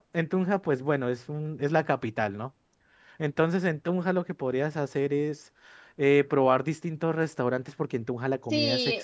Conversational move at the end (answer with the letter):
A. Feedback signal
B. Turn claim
B